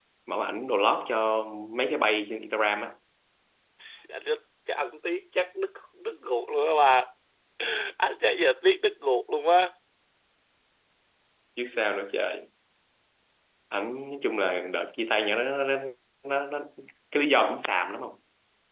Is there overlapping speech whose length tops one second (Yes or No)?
No